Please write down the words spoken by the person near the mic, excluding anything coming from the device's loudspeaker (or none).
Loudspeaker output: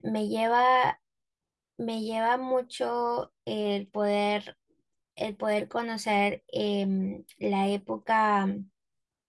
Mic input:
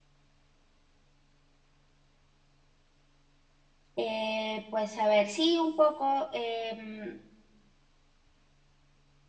Eh, pues a ver, sí, un poco, em,